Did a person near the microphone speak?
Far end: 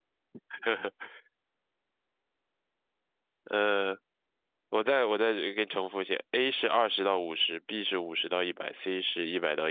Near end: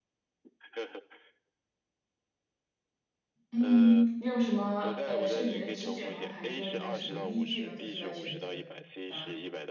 Yes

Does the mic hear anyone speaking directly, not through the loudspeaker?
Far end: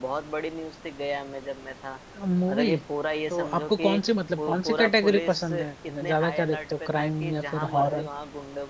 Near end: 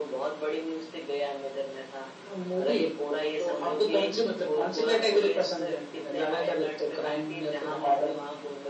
No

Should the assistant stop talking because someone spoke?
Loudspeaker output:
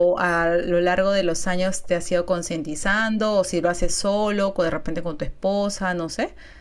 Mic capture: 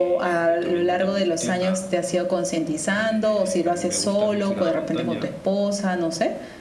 Yes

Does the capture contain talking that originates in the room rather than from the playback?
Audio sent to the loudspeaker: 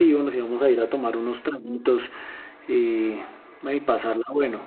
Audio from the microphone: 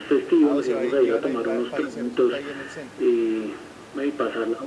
Yes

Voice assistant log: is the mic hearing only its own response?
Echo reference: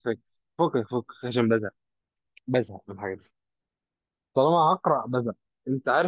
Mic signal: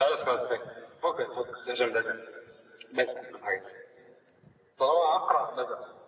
Yes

